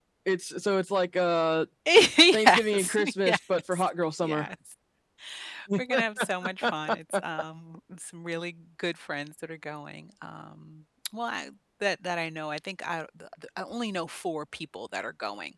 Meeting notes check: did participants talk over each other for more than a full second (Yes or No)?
Yes